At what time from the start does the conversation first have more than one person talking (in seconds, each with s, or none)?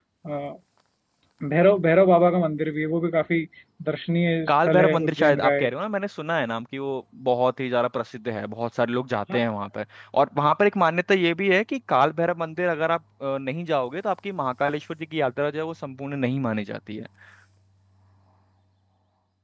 4.5 s